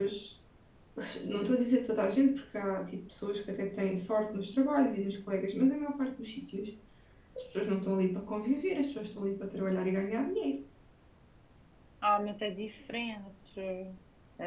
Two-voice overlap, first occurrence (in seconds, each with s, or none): none